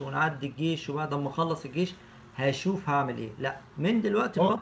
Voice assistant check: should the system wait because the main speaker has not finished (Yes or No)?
Yes